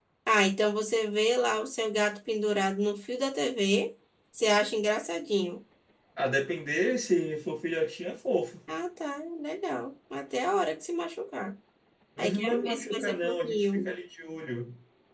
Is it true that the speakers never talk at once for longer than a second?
No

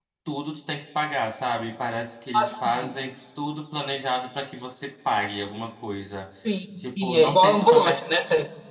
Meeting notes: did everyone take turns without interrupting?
No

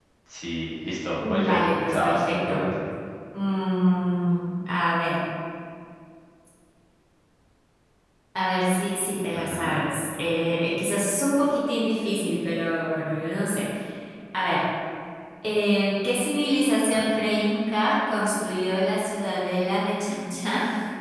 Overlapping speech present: Yes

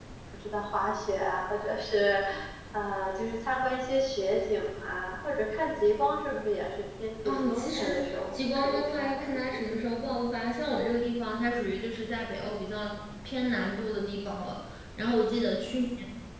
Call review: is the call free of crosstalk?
No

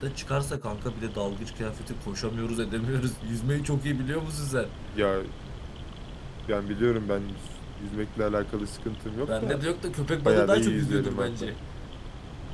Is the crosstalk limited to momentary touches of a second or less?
No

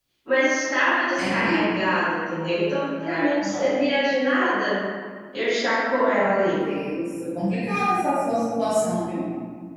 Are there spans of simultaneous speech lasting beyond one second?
No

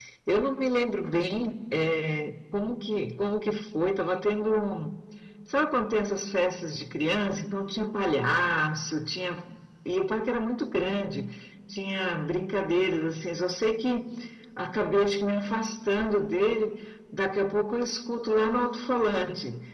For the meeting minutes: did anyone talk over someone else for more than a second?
No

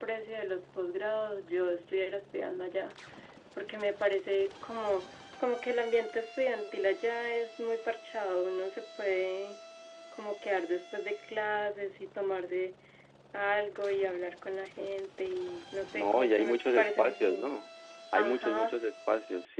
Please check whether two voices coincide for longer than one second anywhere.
Yes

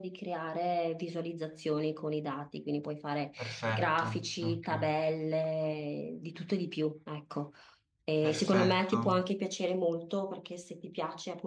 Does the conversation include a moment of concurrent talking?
Yes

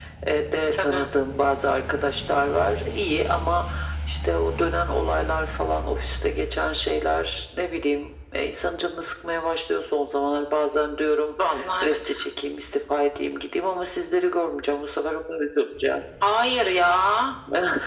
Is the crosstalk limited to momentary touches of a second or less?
Yes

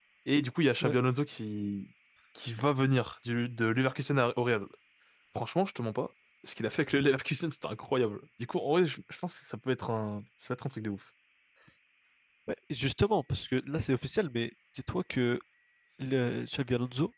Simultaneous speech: No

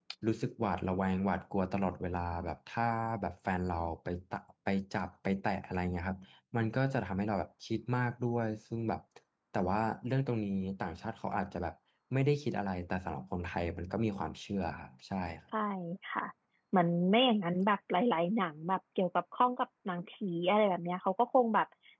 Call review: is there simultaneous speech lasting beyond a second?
No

